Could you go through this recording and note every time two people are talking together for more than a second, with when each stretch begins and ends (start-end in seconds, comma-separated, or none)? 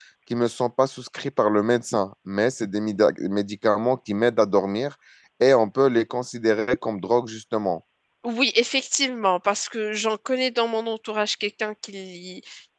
none